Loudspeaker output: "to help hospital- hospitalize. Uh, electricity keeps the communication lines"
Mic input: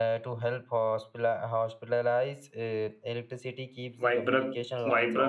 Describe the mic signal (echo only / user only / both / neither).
both